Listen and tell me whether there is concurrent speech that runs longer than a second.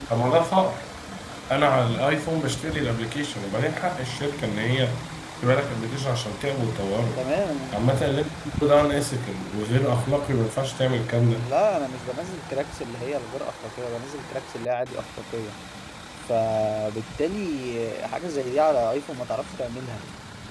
No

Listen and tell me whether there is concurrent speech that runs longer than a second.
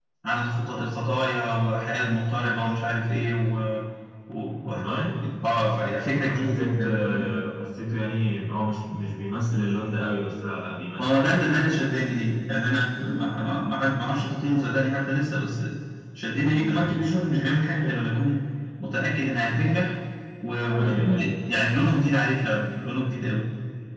Yes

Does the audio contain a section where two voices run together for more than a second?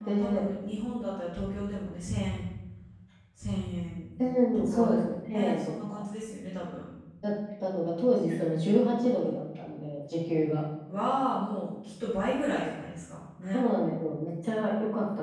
Yes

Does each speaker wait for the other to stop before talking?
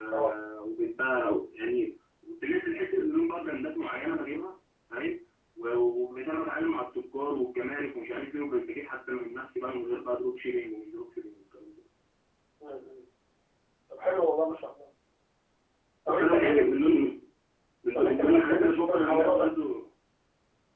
No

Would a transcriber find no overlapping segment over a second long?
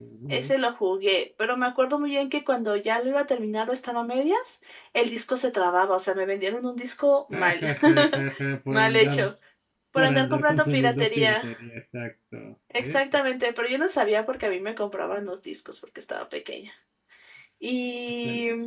No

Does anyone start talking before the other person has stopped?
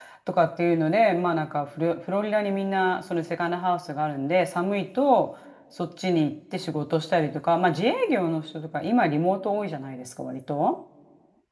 No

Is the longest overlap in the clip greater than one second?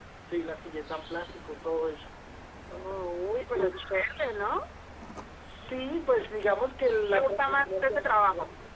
Yes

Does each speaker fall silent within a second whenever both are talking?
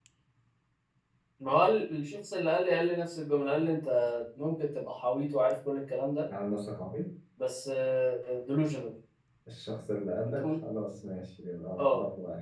Yes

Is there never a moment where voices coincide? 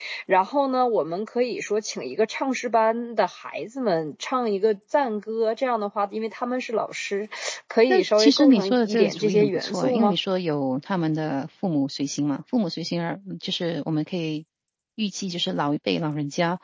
No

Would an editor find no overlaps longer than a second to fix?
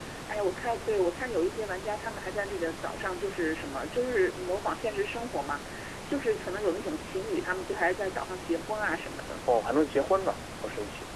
Yes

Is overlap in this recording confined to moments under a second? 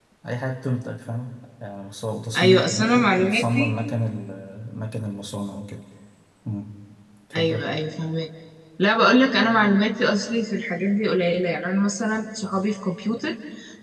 No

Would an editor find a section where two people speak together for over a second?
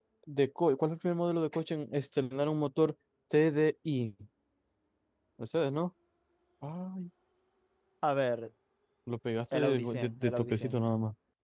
Yes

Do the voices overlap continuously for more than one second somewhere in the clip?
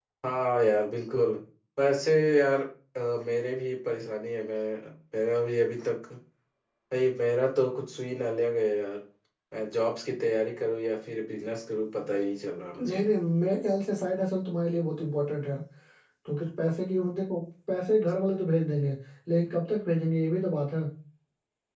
No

